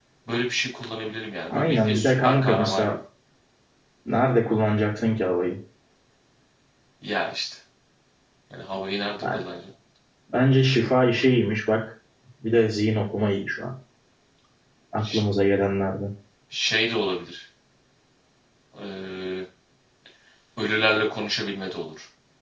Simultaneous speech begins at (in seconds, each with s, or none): 1.5 s